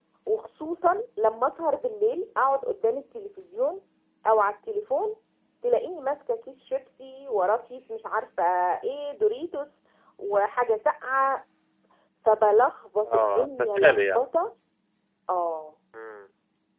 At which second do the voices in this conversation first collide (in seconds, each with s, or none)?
13.1 s